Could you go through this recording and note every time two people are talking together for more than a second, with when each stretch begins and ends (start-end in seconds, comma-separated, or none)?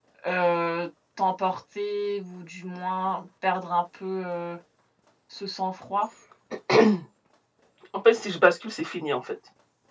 none